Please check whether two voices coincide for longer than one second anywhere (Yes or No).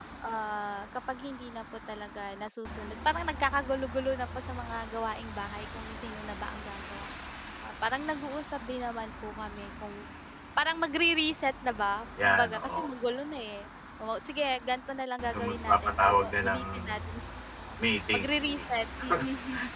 Yes